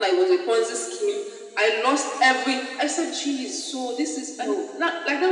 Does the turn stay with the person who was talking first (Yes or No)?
Yes